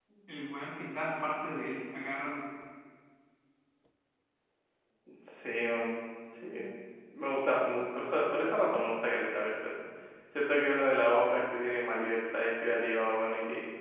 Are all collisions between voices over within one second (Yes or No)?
Yes